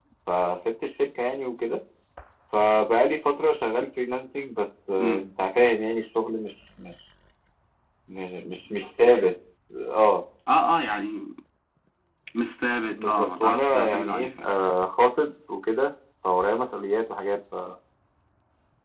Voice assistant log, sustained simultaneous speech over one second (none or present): present